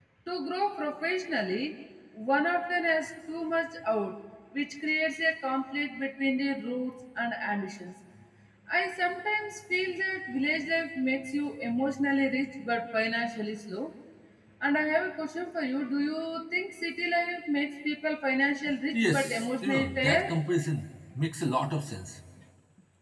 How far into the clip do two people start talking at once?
18.9 s

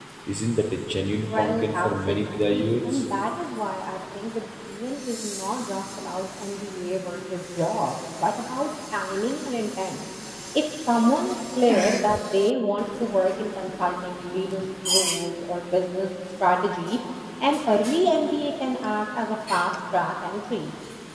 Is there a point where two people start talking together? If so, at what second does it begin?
1.2 s

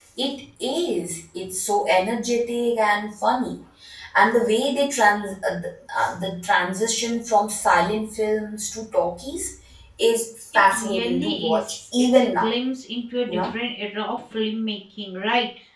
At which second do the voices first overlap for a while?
10.7 s

